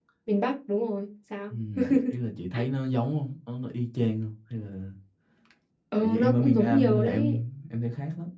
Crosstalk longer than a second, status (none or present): present